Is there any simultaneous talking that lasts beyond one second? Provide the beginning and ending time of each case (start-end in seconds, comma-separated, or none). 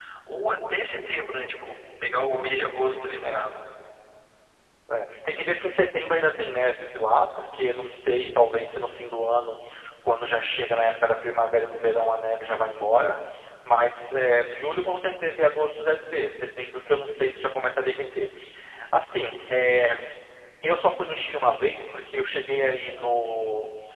none